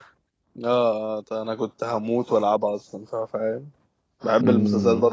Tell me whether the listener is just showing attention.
No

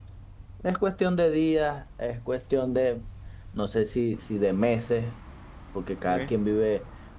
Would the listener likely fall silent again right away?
Yes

